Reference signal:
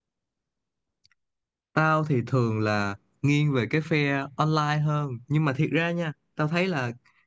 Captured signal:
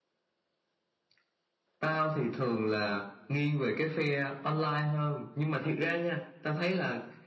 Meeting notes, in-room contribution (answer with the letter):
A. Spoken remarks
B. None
B